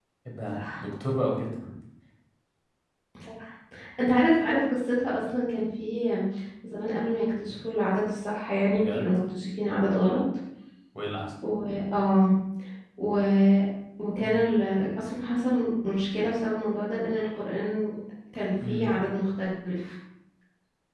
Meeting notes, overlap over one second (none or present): none